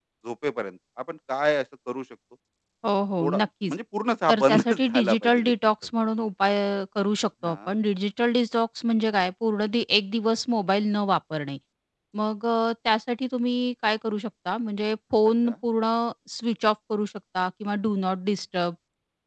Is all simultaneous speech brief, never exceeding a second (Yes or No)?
No